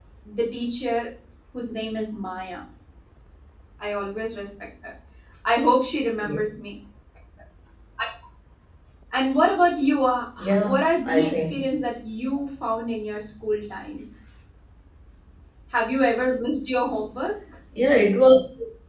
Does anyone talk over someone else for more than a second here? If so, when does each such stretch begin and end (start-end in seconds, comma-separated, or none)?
10.4-11.6